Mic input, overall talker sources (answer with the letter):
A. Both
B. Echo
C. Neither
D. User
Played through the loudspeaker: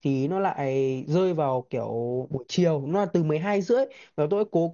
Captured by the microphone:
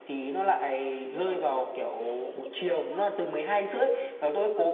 A